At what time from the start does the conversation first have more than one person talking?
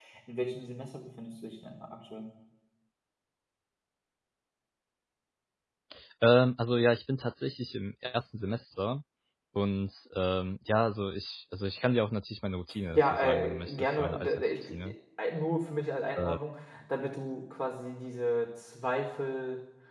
12.9 s

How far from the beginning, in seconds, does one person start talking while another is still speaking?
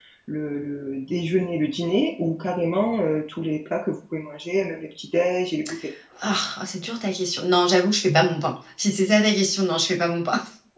none

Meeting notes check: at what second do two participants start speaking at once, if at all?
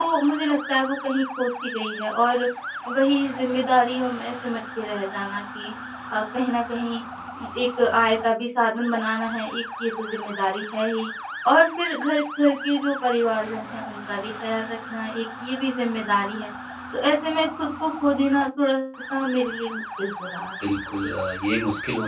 none

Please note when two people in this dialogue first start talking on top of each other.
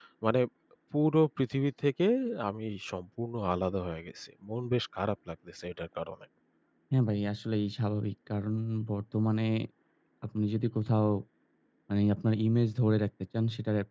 none

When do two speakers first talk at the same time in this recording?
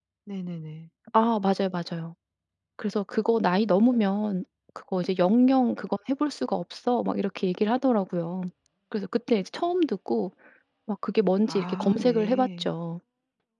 11.5 s

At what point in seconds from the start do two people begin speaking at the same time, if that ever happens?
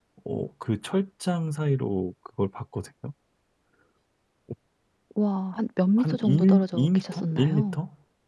6.0 s

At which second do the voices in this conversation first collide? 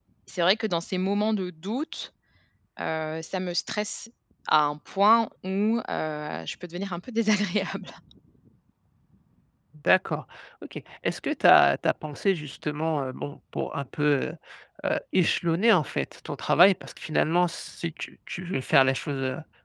none

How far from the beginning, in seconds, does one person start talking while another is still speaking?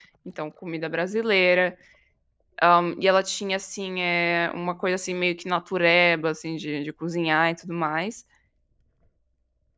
none

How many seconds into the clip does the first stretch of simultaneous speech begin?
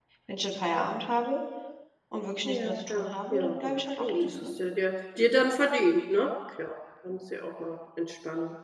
2.5 s

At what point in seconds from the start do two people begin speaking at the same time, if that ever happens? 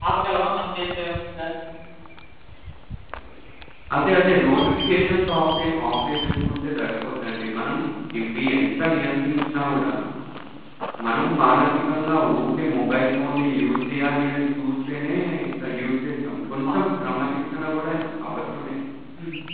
none

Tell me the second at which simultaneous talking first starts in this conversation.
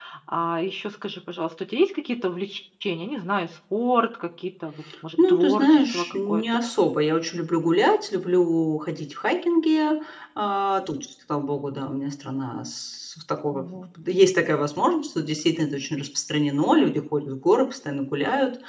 5.2 s

